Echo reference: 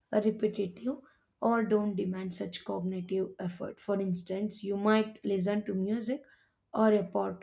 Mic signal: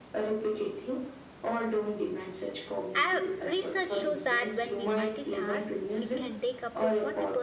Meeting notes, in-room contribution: present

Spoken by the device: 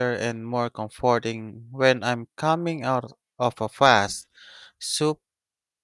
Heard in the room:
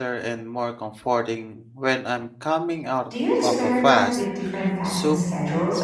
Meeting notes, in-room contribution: present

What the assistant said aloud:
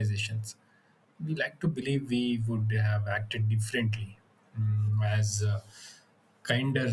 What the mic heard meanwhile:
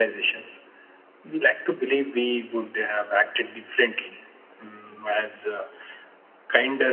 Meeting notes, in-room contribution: none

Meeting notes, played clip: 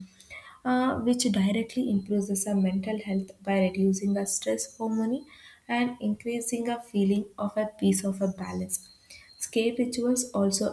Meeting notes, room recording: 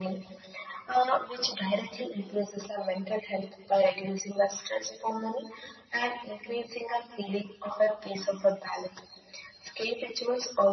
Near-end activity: none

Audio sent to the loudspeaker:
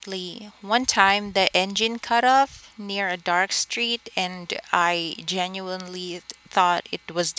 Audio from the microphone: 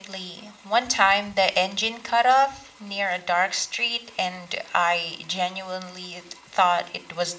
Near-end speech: none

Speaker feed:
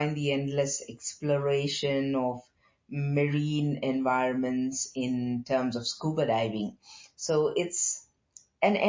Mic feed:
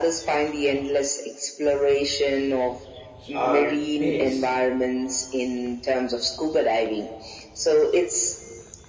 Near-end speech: present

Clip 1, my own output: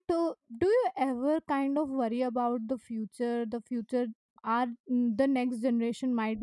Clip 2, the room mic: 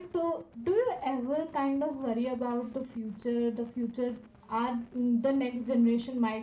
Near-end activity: none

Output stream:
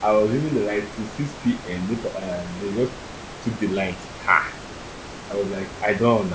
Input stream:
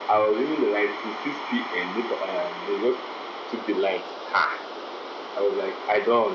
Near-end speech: none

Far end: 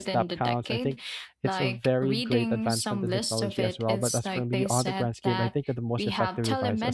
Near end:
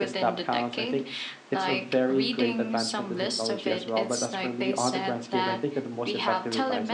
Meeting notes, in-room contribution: none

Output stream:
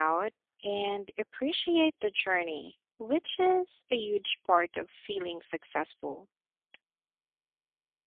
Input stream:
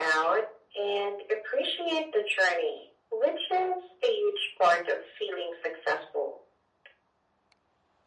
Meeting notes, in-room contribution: none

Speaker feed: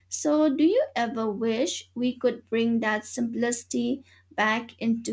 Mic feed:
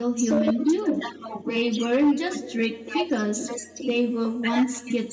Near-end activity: present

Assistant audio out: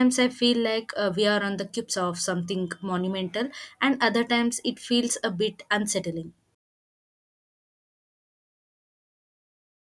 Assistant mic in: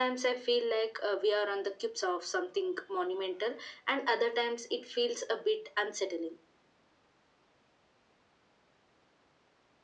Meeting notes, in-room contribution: none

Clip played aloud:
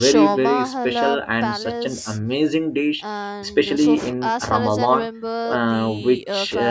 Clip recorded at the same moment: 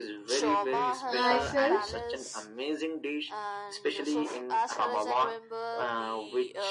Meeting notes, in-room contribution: present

